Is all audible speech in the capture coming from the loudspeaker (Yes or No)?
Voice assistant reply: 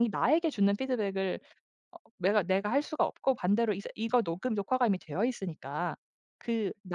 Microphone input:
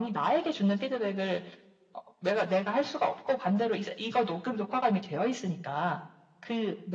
Yes